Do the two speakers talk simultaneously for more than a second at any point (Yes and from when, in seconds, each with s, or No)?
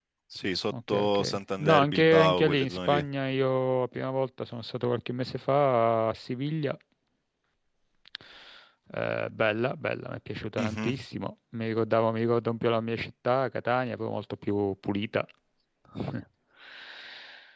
Yes, from 0.9 s